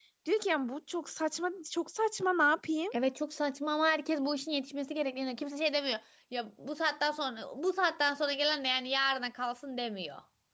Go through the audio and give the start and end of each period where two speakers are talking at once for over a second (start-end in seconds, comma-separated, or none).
none